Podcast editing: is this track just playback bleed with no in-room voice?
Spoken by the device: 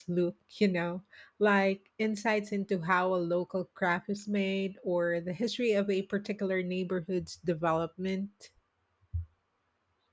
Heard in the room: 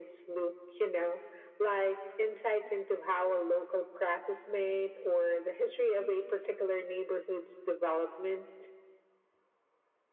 Yes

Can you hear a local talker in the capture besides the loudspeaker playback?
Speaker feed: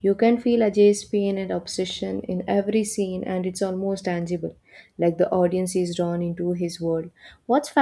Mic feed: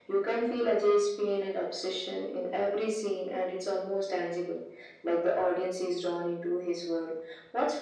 No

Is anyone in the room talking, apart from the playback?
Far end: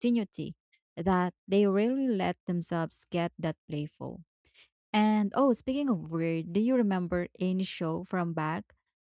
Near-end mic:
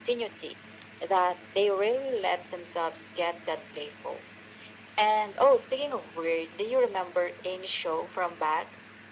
No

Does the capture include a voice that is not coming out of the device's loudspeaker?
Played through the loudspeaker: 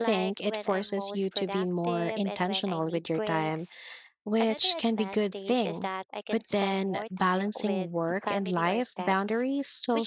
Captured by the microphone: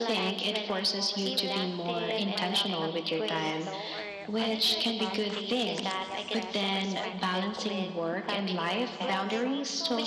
Yes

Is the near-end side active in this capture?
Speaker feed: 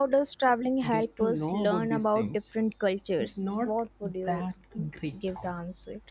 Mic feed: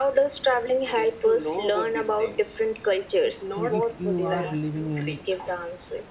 Yes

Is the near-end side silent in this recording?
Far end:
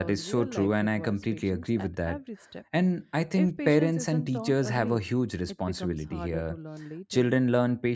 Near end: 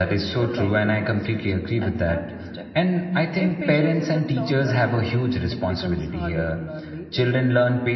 Yes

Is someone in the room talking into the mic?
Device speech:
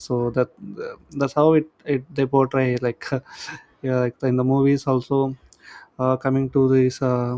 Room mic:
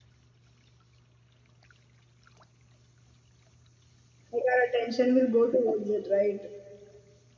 Yes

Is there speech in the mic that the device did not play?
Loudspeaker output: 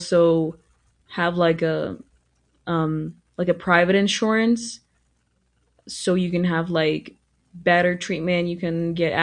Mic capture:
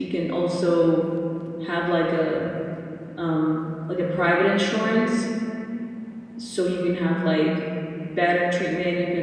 No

